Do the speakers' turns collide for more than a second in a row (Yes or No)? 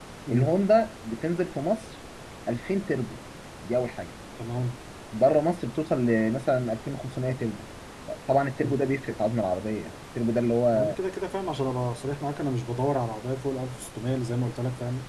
No